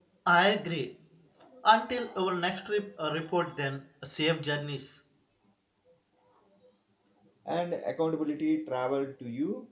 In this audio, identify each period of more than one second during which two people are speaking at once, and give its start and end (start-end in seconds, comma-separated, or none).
none